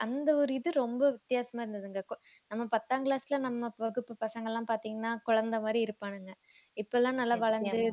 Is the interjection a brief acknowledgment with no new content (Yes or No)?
Yes